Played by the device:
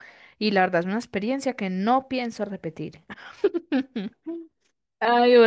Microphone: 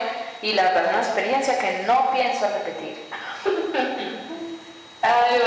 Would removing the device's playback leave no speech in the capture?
Yes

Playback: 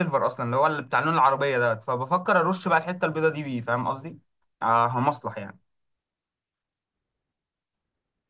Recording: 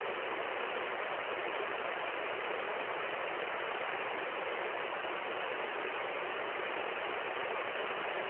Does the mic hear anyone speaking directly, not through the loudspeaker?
No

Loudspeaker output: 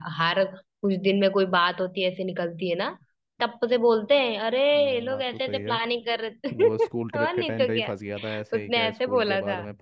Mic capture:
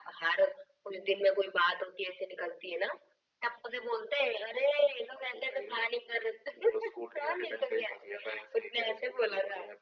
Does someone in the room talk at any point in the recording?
No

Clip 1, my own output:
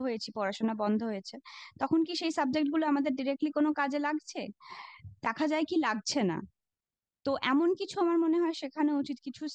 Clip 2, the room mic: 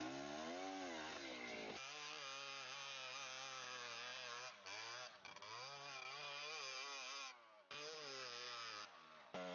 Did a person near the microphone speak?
No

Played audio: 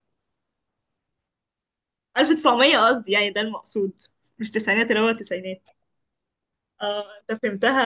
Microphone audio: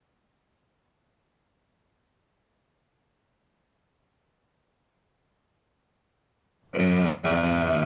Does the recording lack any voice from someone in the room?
No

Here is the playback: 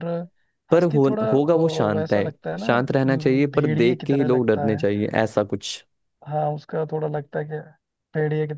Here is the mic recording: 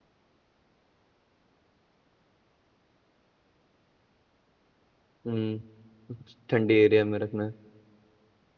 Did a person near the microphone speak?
Yes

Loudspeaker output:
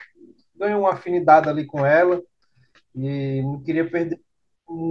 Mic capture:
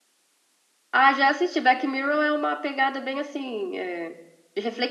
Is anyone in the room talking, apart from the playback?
Yes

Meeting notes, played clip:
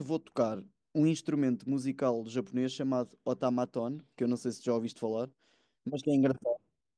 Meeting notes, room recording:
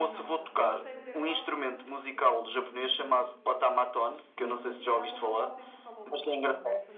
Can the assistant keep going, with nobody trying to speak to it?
No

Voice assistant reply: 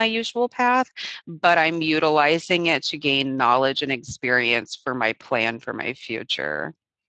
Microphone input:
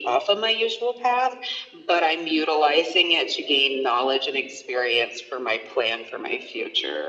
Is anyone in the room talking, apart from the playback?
No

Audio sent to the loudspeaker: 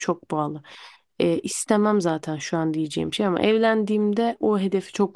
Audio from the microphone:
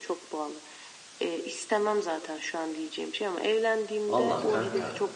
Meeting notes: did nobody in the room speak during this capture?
No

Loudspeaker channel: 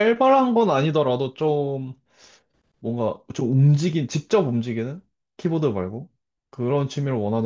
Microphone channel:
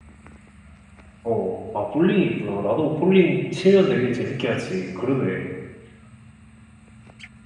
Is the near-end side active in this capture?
Yes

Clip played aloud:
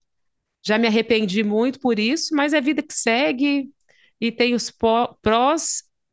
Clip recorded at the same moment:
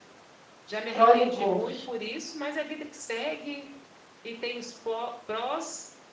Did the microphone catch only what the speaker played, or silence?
No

